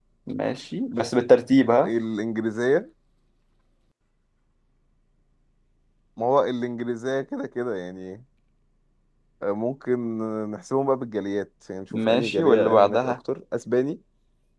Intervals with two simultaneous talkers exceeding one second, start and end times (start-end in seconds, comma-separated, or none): 11.9-13.2